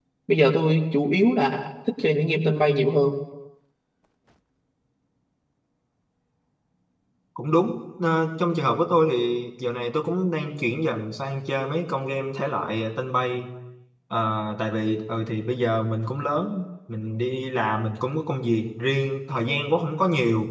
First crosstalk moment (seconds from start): none

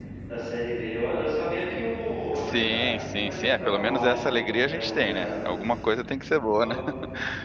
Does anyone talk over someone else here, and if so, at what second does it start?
2.3 s

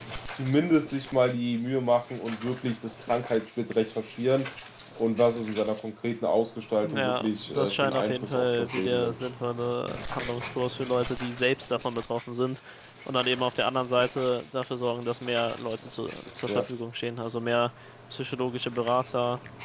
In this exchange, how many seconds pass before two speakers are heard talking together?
6.8 s

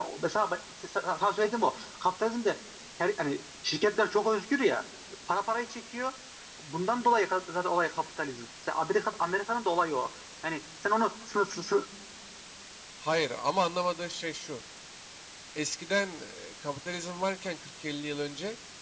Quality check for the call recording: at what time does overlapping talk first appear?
none

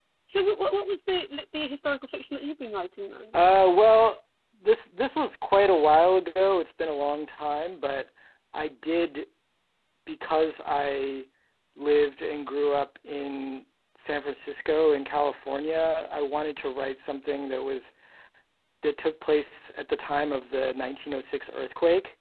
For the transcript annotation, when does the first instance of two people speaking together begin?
none

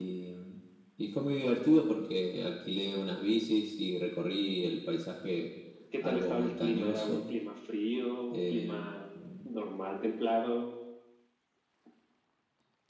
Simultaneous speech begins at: 6.0 s

